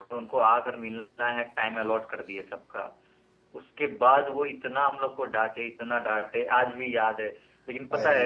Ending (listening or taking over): listening